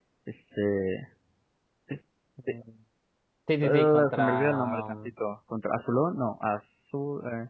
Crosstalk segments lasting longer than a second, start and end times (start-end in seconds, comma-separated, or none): 3.6-5.0